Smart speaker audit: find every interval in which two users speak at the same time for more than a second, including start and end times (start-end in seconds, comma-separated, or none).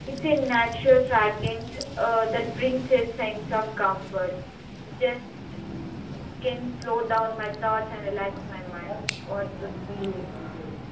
8.7-10.2